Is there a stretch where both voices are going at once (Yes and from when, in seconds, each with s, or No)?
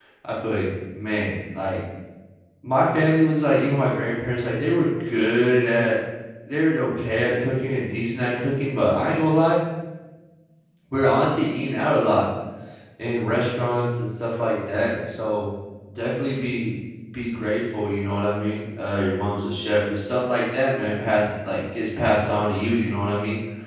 No